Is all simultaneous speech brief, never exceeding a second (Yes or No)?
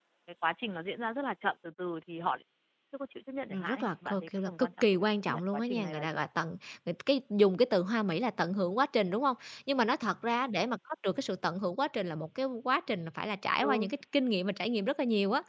No